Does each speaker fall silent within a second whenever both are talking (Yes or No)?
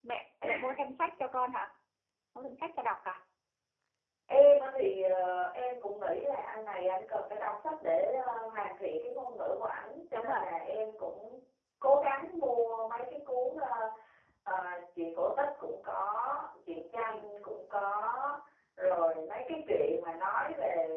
Yes